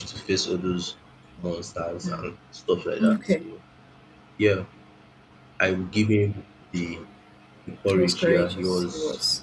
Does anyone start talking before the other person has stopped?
Yes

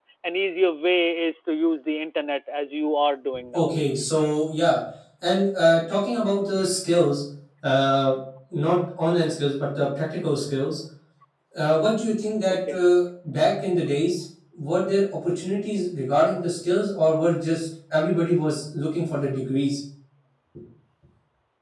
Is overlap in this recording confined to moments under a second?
Yes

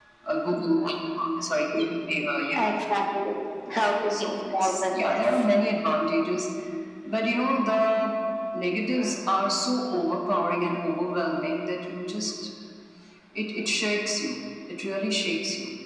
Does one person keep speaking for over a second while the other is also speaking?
Yes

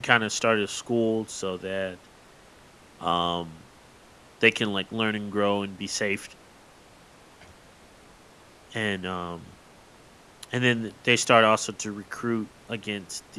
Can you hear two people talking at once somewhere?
No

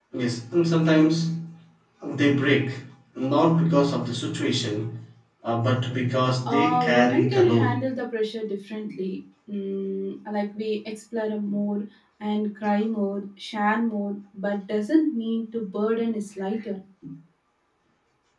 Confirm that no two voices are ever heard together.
No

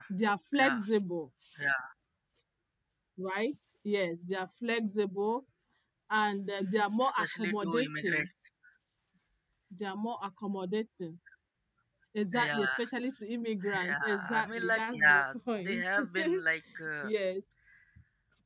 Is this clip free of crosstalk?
No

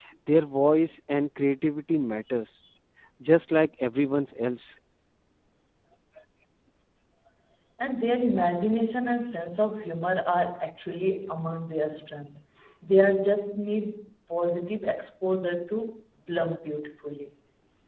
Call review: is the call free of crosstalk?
Yes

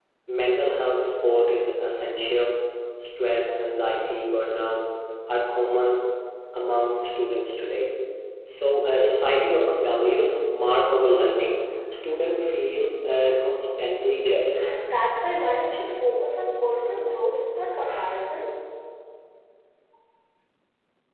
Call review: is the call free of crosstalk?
Yes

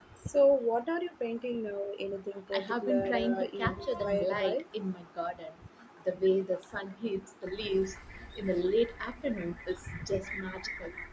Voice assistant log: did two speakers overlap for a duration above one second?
Yes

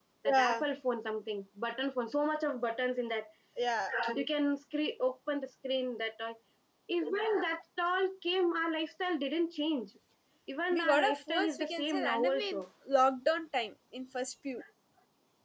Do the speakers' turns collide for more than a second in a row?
Yes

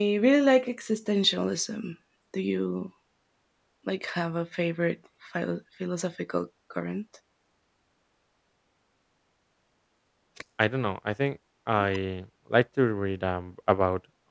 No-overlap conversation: Yes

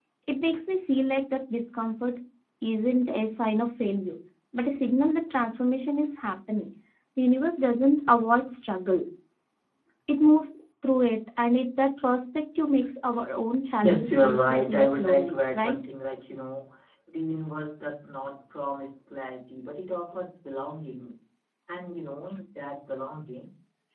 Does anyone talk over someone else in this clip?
Yes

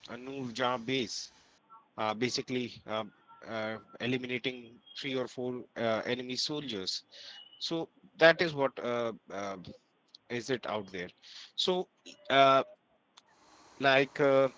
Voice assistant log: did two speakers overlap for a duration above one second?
No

